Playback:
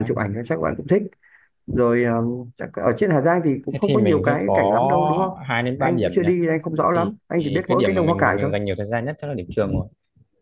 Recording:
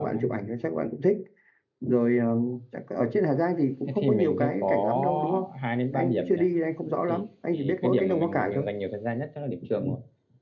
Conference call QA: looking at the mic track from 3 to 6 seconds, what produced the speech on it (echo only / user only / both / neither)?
echo only